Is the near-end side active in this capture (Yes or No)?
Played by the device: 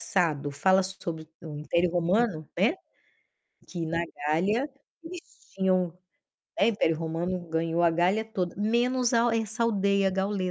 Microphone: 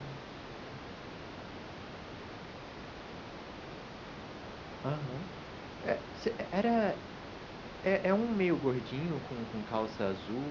Yes